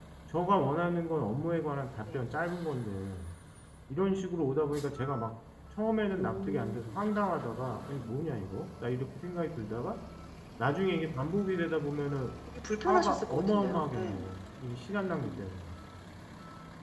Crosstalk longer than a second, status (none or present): present